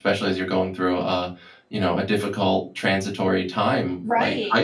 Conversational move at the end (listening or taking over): taking over